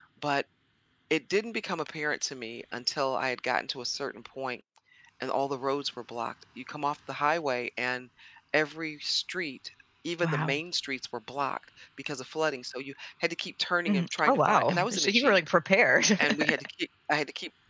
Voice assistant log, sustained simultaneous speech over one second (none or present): present